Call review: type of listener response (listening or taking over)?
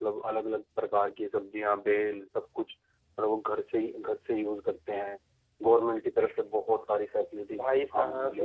taking over